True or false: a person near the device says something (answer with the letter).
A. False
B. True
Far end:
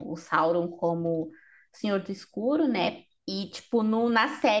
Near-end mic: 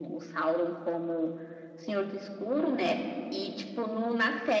A